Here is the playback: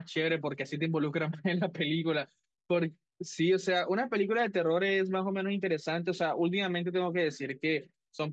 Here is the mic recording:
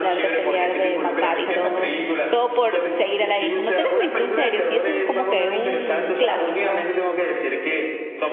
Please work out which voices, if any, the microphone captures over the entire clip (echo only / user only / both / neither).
both